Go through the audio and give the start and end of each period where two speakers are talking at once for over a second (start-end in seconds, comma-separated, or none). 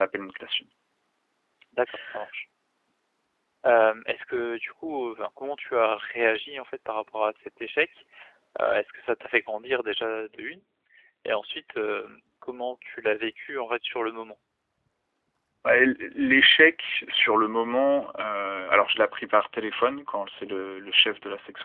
none